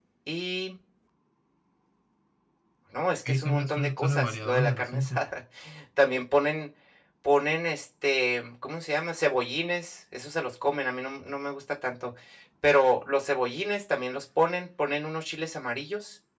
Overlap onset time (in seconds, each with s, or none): 3.2 s